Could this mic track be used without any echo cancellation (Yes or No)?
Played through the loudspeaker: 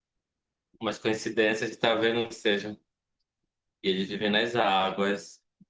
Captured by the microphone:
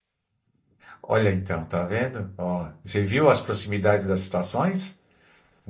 Yes